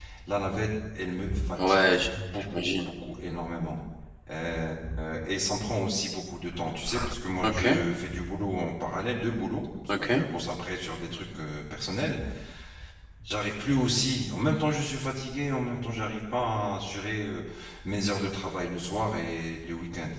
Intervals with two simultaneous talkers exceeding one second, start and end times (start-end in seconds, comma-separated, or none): none